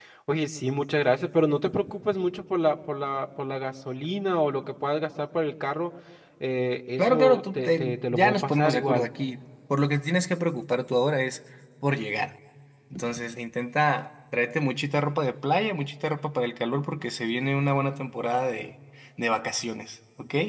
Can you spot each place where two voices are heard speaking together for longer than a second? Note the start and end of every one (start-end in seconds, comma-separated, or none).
7.0-9.1